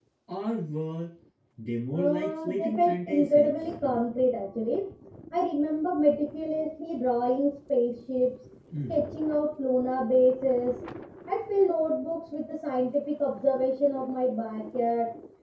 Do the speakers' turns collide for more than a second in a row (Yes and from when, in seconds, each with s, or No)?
Yes, from 1.9 s